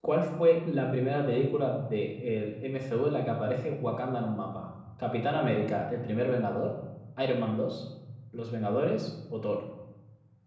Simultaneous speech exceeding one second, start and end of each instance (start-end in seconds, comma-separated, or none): none